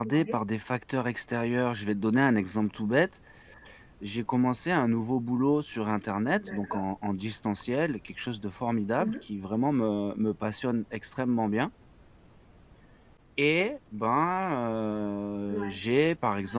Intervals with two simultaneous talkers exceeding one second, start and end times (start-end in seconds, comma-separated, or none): none